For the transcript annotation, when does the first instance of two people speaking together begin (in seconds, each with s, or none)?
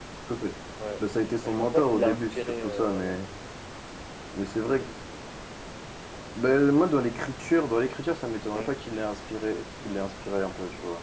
1.4 s